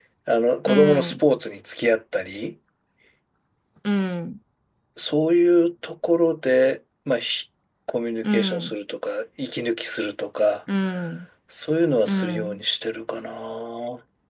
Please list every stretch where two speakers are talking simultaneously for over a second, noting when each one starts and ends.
none

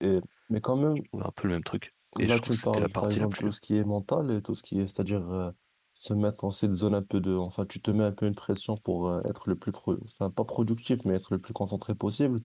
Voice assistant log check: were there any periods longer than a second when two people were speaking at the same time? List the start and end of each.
2.2-3.5

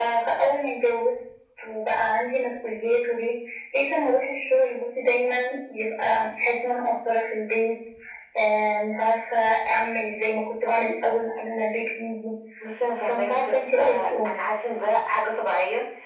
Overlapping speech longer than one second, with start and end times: 13.0-14.3

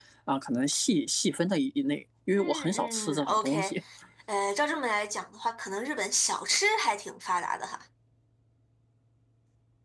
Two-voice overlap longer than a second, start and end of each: 2.4-3.7

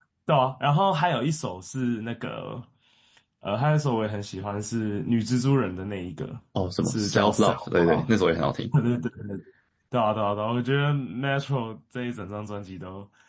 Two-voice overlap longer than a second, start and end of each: 6.8-8.1

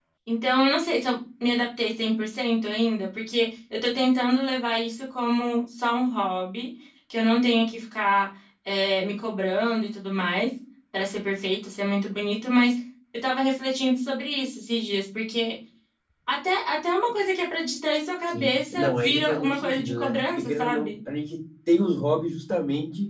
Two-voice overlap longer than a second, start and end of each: 18.3-20.9

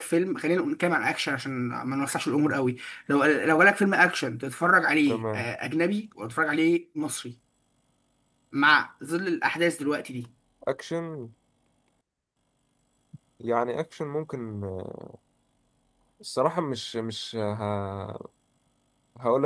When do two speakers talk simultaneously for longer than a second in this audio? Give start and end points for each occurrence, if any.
none

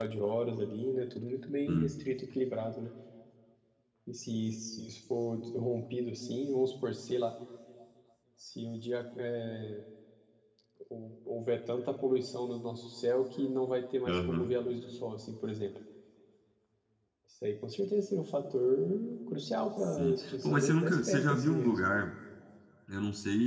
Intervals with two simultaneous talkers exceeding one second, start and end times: 19.8-21.8

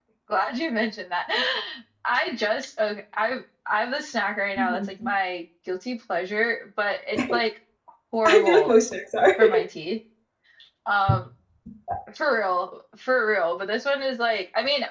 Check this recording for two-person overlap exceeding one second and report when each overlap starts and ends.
none

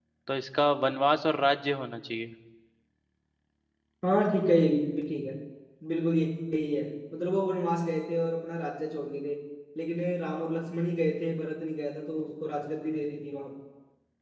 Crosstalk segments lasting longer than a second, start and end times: none

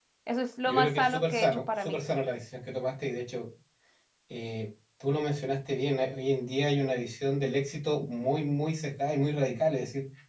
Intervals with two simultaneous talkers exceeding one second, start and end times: 0.7-2.0

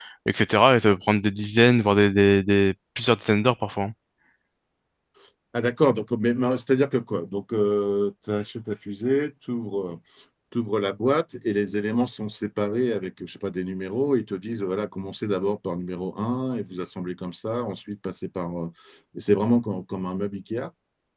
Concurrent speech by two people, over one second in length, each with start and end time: none

